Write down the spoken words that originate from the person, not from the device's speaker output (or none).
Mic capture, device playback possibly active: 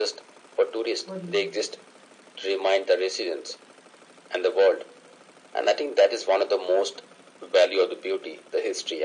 What do you think?